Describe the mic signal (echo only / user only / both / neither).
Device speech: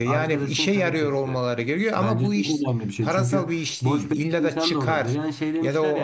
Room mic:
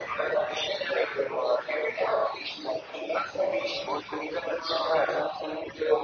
echo only